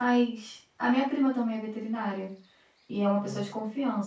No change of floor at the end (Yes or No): Yes